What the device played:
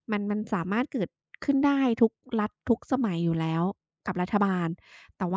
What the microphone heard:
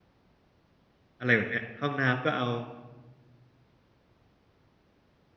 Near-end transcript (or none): อะไรแบบเนี้ยห้องน้ำก็เอา